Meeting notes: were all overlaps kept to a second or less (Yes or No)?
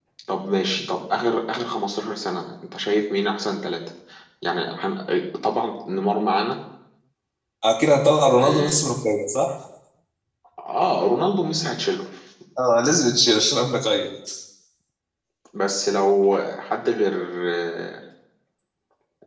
Yes